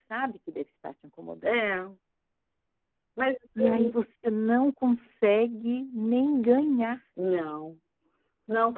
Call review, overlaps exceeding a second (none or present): none